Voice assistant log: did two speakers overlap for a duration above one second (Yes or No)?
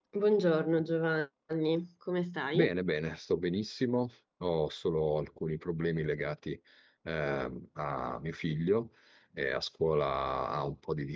No